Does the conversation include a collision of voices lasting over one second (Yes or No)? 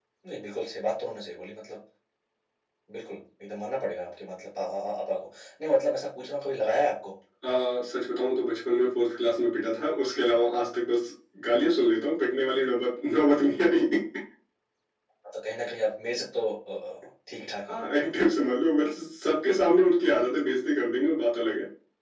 No